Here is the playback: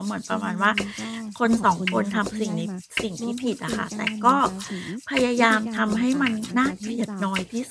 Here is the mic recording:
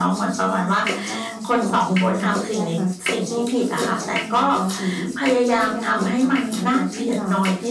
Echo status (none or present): present